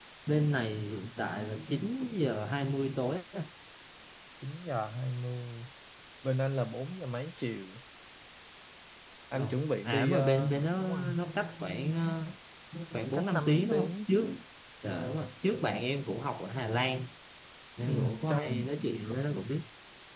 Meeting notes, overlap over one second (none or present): present